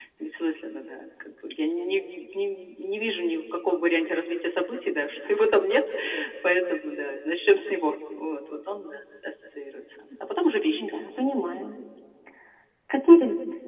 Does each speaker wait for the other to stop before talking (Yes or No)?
Yes